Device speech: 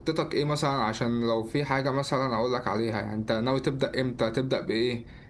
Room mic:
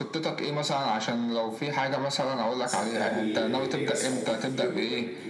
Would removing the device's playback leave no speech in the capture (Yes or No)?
No